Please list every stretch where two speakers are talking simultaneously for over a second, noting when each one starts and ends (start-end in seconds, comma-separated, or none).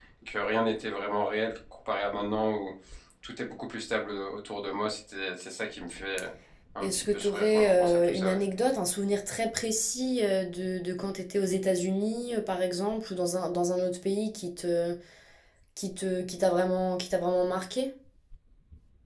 6.8-8.4